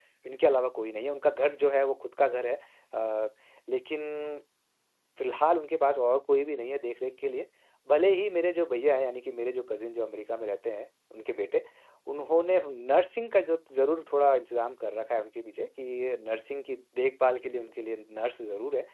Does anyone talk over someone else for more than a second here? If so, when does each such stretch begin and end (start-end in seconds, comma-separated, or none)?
none